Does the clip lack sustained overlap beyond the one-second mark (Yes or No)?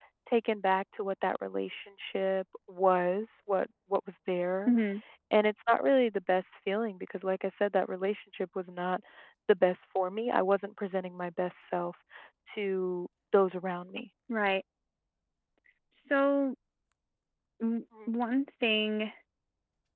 Yes